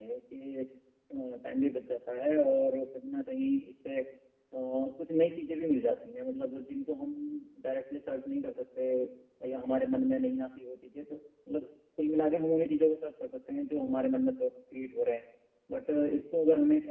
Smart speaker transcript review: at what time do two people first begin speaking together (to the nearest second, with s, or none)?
none